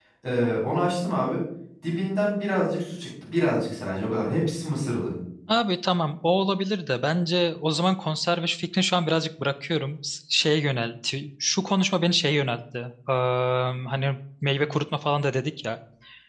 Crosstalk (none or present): none